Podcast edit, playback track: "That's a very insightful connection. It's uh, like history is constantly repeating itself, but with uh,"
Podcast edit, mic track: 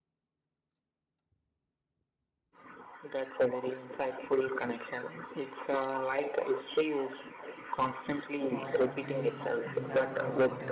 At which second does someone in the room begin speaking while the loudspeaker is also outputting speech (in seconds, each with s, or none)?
8.5 s